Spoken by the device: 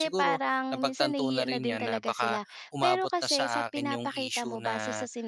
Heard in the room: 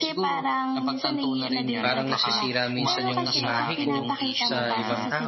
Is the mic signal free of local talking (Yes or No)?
No